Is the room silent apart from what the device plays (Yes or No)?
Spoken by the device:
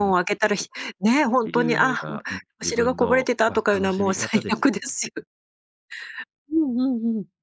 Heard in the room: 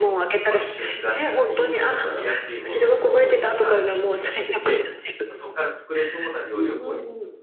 No